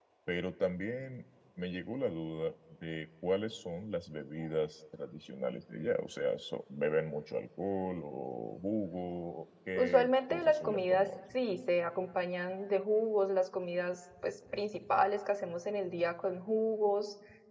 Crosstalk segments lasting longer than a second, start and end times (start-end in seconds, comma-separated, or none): 9.8-11.1